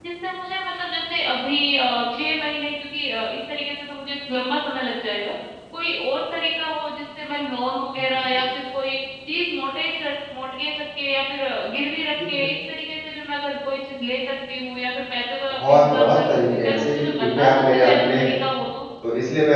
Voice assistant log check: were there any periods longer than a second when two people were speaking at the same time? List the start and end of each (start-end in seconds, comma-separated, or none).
15.5-18.3